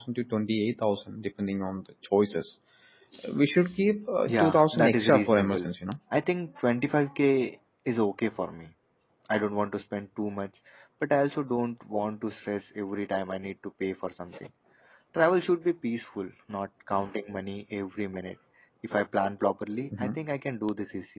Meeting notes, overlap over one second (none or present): present